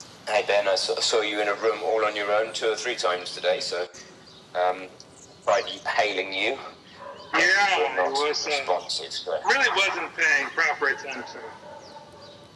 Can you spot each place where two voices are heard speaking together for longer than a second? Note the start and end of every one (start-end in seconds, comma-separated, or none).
7.4-8.7